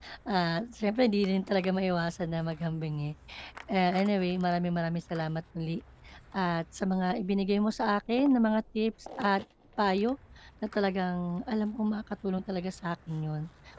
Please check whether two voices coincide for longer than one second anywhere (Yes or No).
No